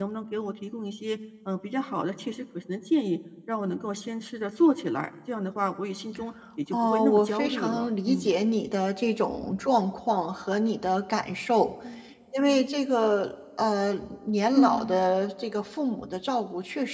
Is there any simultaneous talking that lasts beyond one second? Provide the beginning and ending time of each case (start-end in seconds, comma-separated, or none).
6.7-8.3